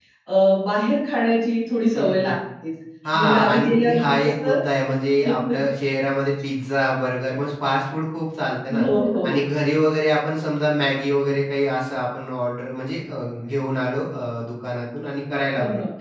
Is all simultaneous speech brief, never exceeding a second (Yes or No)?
No